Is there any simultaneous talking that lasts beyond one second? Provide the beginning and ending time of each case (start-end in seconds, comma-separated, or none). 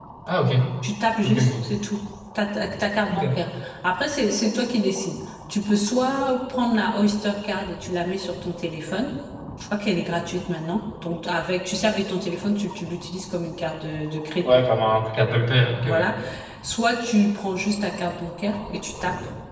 none